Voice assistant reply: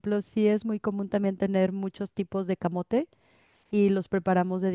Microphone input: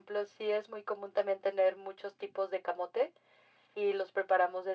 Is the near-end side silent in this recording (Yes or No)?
Yes